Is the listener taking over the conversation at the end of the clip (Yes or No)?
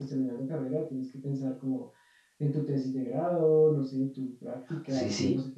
Yes